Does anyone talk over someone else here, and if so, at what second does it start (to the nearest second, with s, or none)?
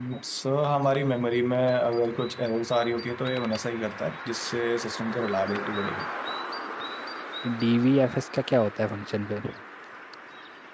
none